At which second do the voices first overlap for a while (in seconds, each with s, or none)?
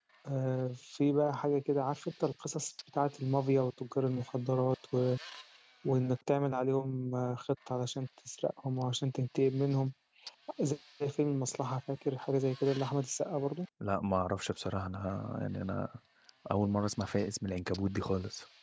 none